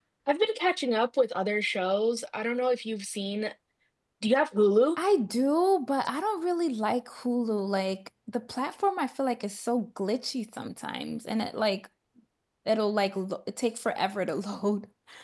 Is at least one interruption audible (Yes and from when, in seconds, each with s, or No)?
No